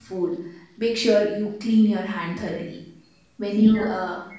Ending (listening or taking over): listening